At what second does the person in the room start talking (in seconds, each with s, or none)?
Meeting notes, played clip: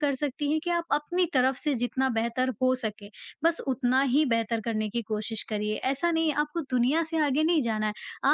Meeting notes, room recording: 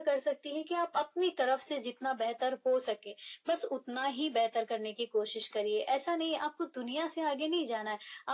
none